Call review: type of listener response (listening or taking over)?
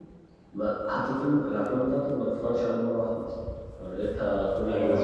taking over